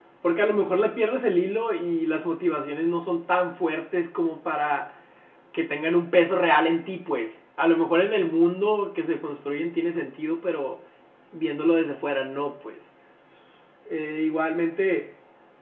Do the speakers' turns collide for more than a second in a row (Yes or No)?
No